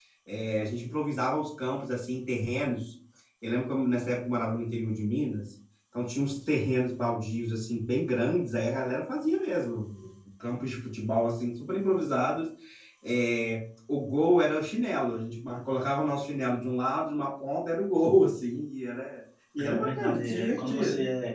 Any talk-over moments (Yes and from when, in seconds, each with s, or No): Yes, from 19.6 s